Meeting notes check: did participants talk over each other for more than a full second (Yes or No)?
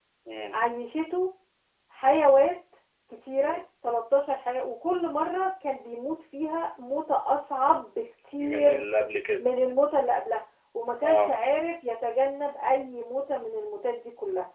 No